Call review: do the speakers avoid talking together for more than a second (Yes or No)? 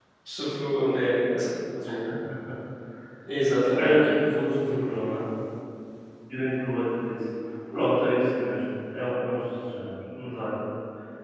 Yes